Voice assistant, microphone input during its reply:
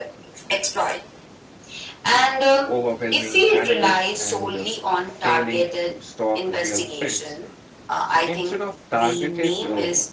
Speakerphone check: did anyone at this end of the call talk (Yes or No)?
Yes